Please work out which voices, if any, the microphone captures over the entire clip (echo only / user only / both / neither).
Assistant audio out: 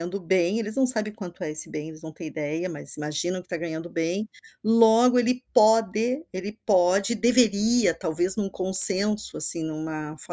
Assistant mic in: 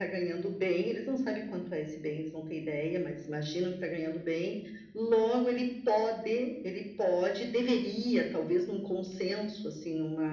echo only